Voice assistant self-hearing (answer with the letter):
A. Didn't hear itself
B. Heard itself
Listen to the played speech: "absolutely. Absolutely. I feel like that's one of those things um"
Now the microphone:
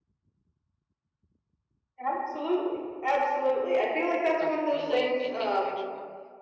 B